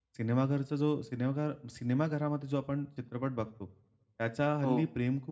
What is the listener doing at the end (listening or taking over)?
listening